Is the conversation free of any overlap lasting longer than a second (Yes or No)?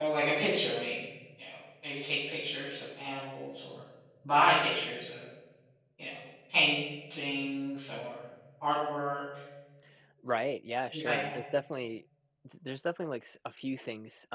Yes